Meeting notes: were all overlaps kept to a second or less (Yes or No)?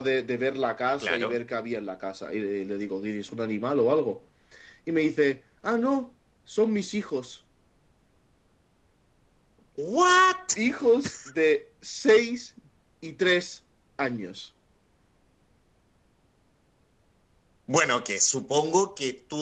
Yes